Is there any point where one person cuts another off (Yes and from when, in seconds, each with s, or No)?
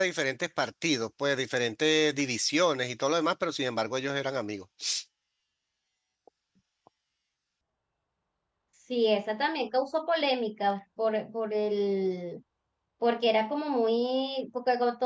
No